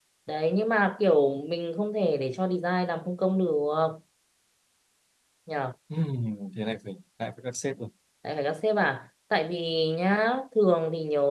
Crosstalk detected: No

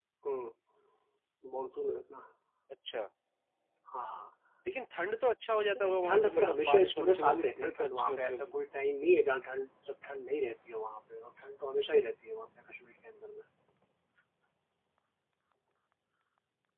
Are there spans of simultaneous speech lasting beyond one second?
Yes, from 5.8 s

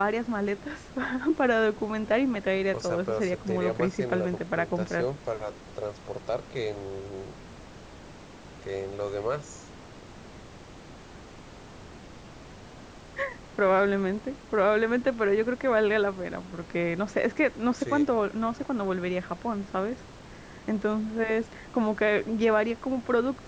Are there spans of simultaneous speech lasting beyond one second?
Yes, from 2.7 s

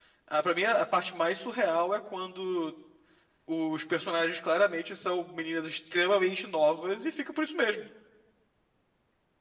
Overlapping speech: No

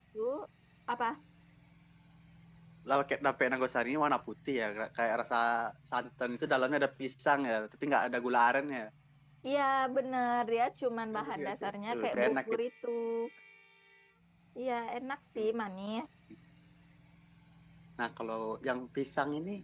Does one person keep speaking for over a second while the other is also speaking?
Yes, from 11.1 s

